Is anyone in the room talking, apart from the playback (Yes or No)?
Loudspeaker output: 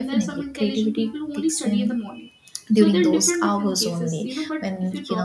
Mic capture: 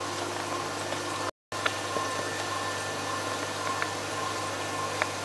No